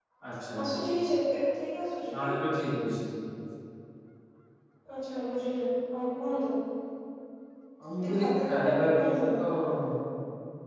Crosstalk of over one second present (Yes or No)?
Yes